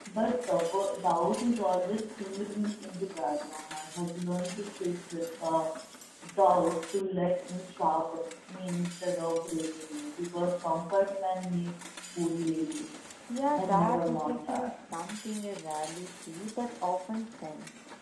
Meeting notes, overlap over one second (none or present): present